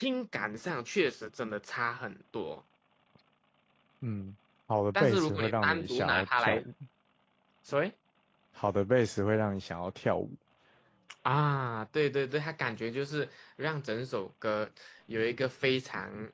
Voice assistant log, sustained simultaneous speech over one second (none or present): present